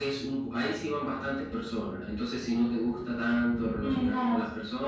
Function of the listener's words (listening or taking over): taking over